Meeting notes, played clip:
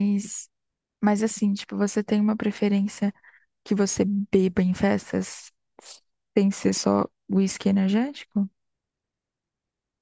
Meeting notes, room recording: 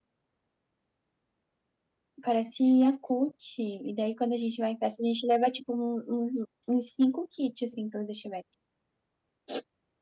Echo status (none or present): none